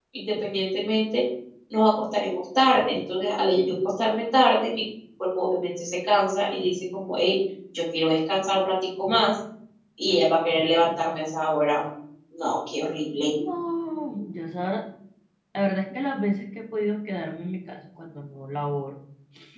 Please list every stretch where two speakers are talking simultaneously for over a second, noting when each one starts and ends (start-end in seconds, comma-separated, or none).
none